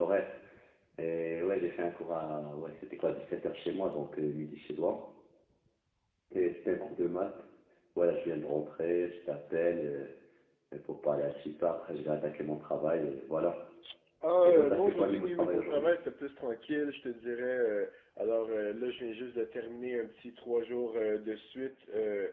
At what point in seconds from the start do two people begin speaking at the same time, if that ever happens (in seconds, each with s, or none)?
14.4 s